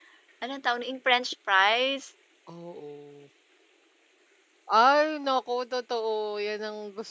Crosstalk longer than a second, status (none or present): none